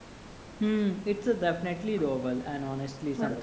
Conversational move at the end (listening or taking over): listening